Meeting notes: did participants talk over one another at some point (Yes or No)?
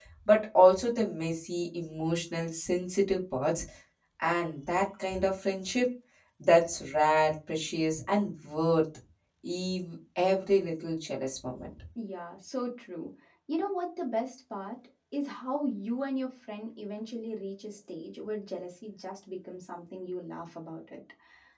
No